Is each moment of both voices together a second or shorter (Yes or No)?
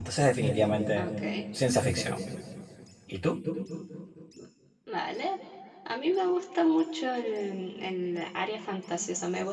Yes